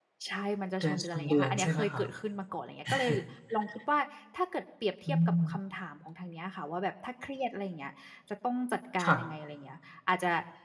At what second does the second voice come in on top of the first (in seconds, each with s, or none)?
0.8 s